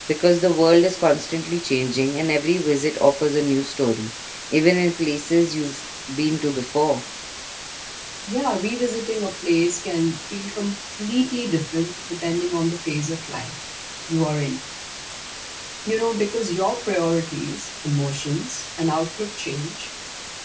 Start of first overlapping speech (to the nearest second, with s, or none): none